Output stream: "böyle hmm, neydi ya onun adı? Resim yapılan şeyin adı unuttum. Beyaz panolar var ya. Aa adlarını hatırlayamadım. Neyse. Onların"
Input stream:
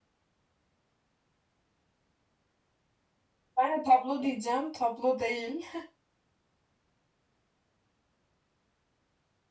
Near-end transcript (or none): Ben de tablo diyeceğim. Tablo değil.